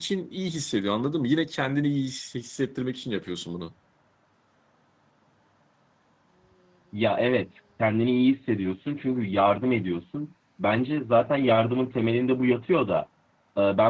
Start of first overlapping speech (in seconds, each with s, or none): none